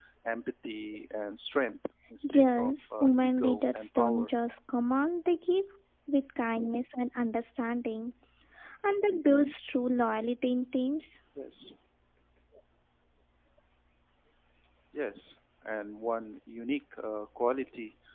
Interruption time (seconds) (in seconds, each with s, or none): 2.3 s